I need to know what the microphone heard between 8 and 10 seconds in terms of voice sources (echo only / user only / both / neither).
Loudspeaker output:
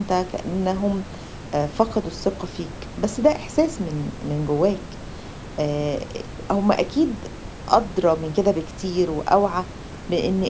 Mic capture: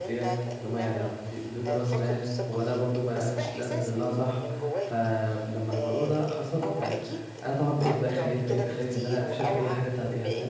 both